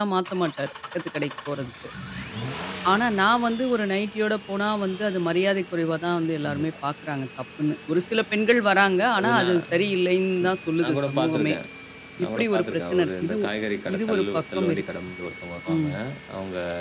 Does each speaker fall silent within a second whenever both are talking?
No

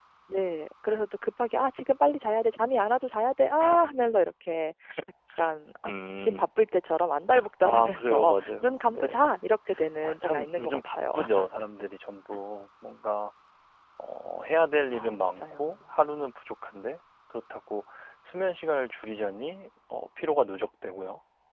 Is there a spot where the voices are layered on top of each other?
Yes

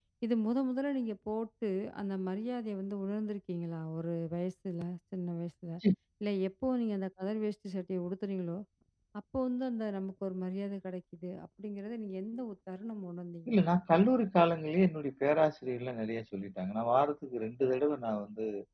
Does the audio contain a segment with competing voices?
No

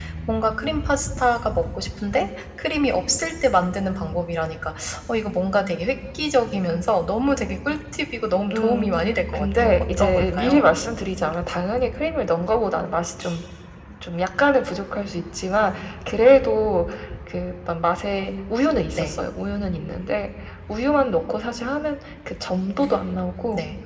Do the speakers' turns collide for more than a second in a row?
Yes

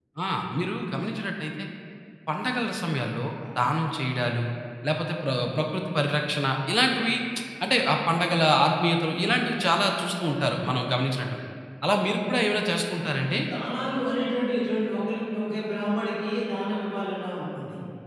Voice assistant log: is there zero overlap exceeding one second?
Yes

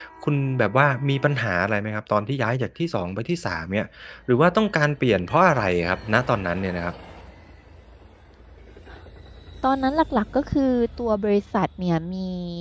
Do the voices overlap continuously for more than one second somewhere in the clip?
No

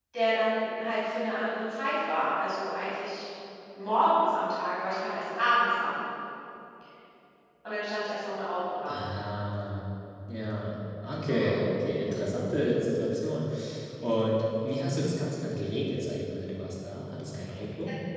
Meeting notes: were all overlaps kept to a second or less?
Yes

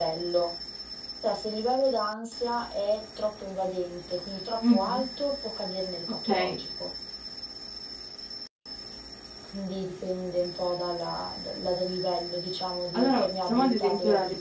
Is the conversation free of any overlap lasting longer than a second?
No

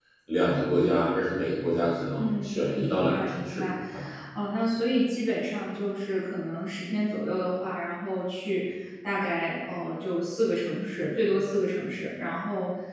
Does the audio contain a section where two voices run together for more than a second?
Yes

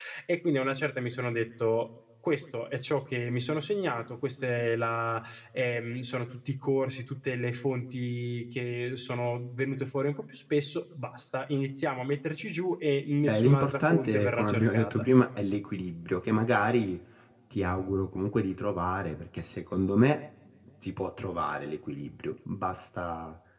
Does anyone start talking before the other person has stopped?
Yes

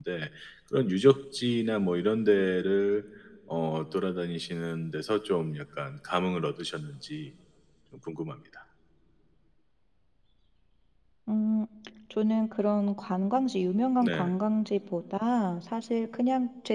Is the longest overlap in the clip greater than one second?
No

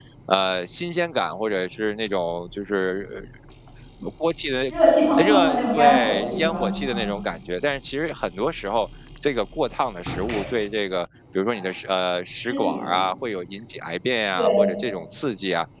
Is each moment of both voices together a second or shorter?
No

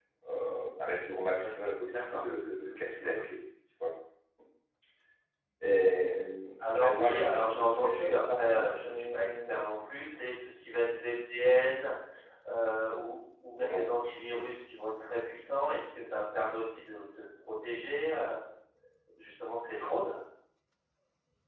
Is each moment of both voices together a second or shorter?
No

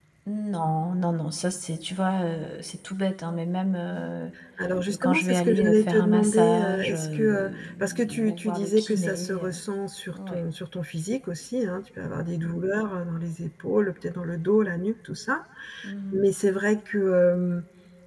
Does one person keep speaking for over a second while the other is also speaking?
Yes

